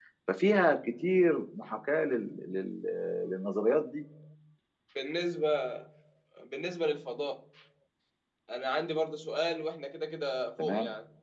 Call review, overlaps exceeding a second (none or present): none